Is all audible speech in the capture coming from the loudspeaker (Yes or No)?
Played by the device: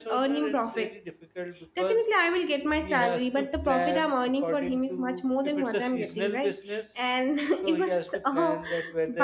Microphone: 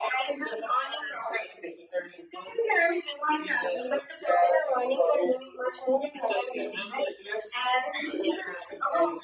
Yes